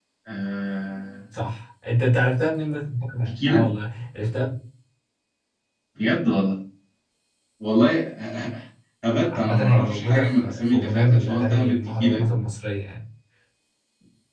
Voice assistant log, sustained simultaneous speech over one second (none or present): present